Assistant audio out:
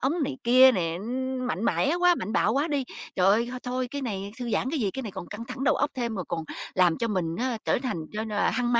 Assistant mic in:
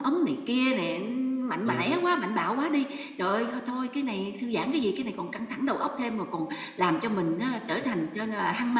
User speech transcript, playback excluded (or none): Ừm.